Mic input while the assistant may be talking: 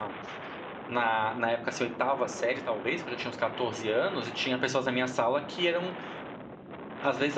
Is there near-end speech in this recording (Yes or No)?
Yes